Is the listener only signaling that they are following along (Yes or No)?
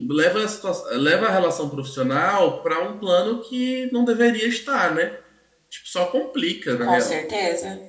No